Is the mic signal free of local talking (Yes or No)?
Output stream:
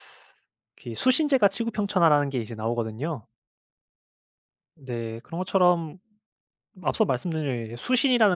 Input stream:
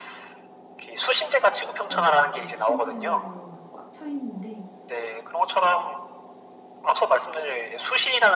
No